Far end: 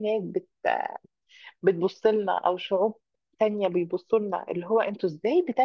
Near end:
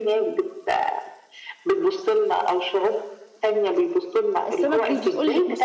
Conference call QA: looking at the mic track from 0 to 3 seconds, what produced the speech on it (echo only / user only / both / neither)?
echo only